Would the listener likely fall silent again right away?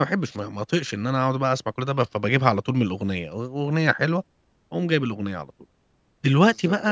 Yes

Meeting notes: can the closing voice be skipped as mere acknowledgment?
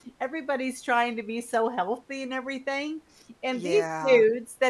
Yes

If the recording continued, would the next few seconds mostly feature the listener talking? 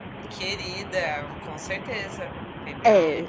Yes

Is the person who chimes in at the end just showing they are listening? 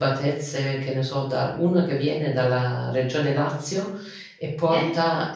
Yes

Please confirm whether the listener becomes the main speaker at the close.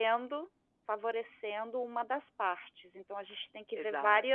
No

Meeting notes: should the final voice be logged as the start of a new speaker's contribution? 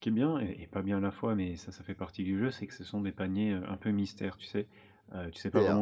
Yes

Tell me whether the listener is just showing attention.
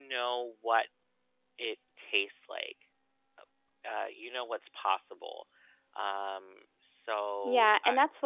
No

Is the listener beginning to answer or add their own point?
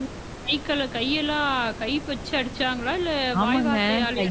Yes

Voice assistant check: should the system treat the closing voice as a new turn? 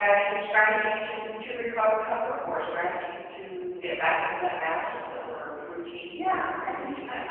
Yes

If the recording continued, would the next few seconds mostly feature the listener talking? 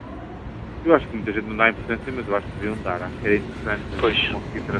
No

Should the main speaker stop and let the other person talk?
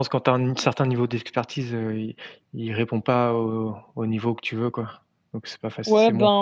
Yes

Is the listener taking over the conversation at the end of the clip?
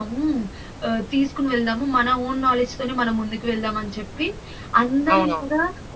No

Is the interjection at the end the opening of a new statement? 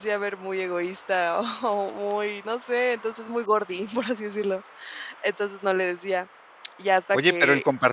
Yes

